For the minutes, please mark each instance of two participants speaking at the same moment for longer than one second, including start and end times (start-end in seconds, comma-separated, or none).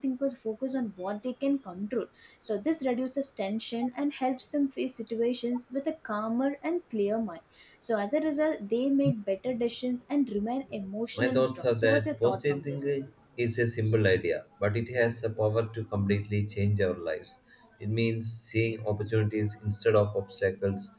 11.2-13.0